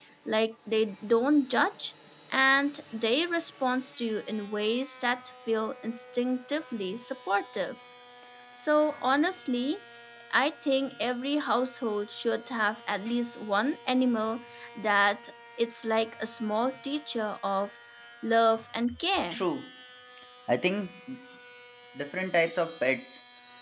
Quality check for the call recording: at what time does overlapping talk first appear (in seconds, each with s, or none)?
none